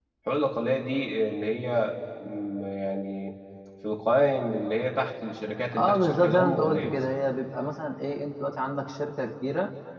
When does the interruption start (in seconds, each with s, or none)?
5.7 s